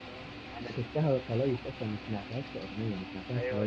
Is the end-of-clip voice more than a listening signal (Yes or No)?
Yes